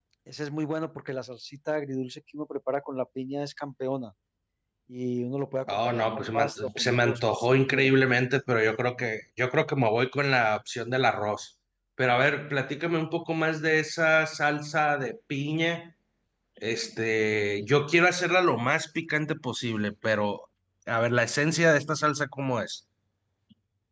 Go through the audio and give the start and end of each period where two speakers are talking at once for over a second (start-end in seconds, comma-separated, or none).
5.7-7.9